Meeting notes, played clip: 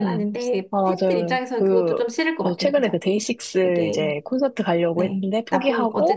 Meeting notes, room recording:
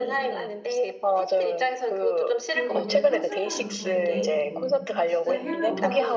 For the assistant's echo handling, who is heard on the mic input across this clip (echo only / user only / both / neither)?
both